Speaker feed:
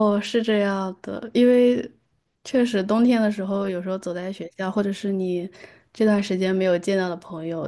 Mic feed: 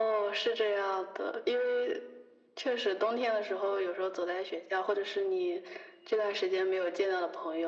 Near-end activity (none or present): none